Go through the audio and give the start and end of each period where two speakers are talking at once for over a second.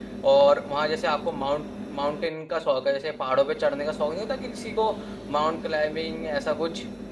none

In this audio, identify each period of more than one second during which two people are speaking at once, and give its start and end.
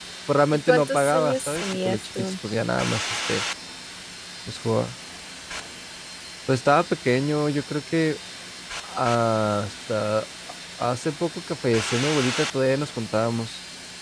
0.7-2.3

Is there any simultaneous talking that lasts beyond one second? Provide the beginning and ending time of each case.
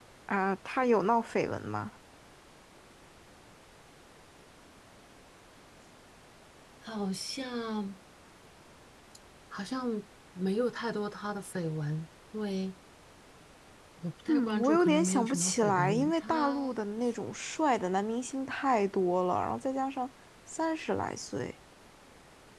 14.3-16.7

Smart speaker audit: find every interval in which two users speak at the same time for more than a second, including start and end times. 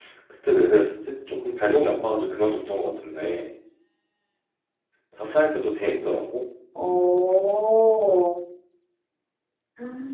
none

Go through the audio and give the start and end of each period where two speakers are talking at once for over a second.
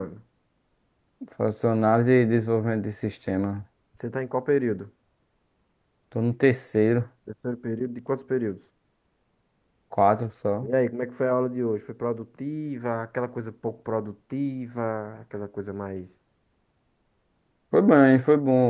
none

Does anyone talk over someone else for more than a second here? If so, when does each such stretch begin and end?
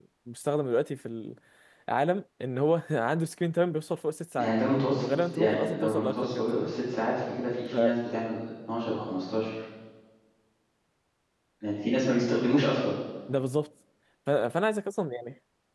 5.0-6.7

